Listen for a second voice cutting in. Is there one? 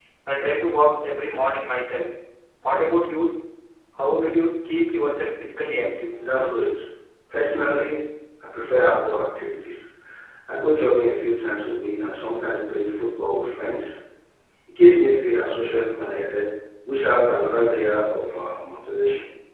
No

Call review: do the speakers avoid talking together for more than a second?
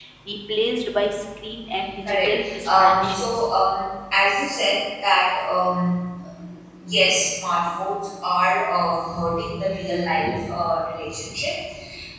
No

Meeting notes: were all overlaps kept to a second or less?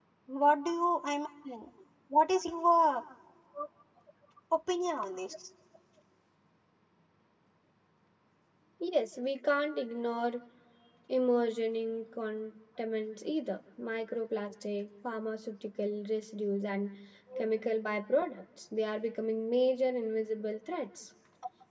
Yes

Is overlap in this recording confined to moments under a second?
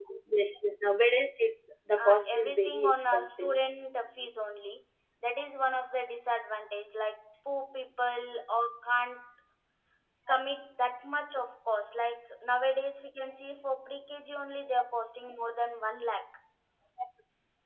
No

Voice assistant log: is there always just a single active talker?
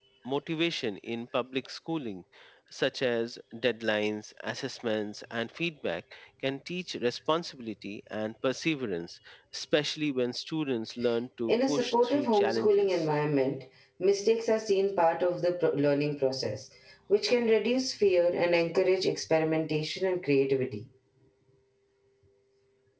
No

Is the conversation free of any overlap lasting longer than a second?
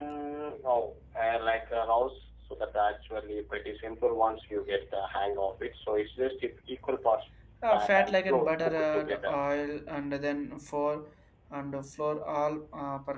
No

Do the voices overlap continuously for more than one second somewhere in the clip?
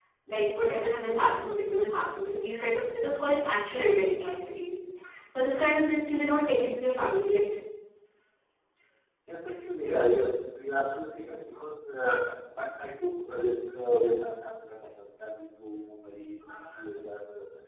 No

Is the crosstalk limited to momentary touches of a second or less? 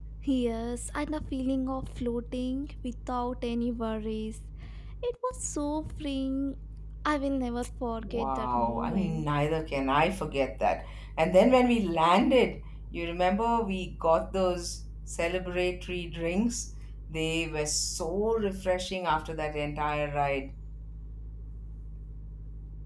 No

